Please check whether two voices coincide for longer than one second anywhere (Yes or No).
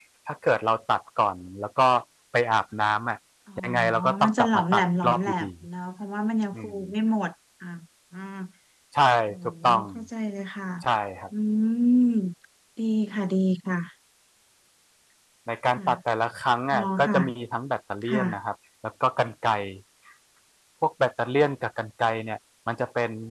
Yes